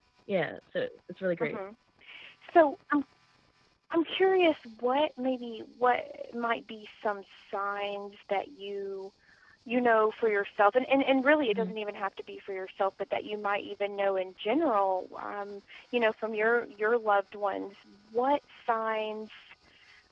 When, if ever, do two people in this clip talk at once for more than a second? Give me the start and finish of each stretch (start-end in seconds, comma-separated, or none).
none